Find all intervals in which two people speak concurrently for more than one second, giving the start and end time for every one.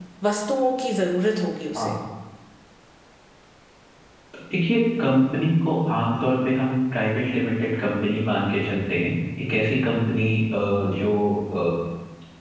none

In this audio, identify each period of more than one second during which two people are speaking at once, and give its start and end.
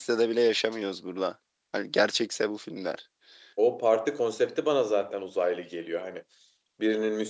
none

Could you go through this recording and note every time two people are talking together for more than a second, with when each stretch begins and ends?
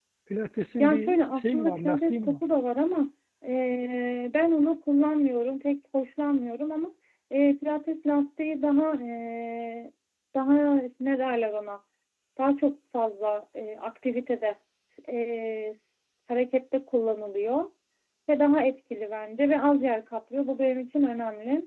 0.8-2.4

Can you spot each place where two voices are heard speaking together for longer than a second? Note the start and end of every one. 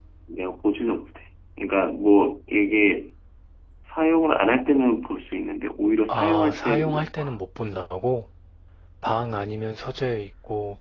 6.1-7.3

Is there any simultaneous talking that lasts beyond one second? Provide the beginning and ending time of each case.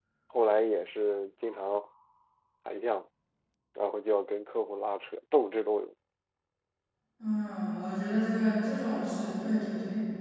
none

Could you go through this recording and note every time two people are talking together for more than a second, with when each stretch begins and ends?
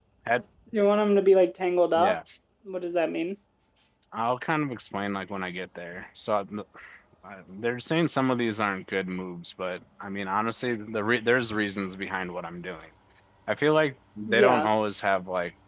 none

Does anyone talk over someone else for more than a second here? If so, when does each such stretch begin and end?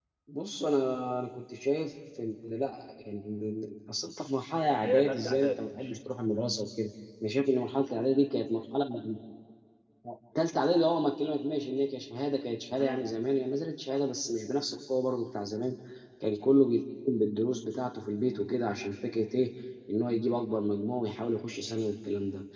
4.7-5.9

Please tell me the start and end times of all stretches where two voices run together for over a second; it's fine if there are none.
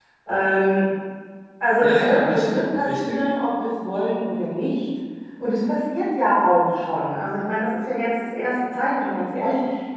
1.8-3.2

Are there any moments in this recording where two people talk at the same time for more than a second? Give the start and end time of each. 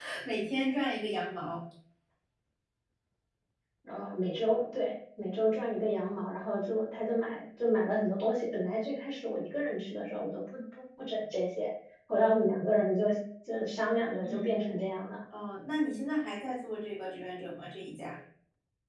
none

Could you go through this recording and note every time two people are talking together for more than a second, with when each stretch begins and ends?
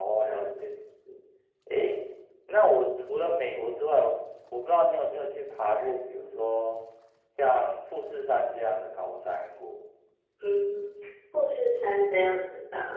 none

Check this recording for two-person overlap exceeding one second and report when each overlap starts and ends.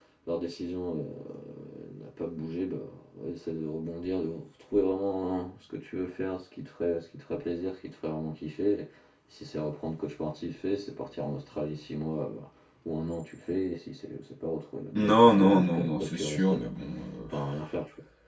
14.9-16.7

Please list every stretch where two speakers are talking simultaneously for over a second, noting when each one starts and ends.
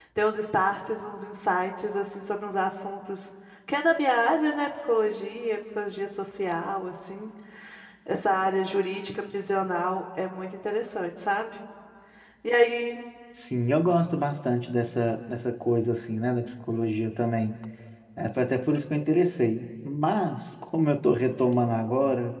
none

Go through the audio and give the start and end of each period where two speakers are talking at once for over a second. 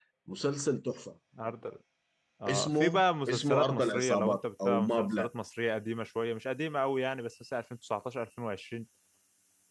3.3-5.3

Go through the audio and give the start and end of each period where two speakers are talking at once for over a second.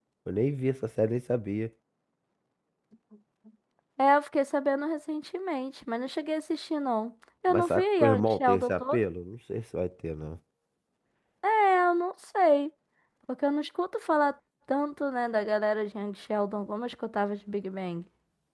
7.5-9.0

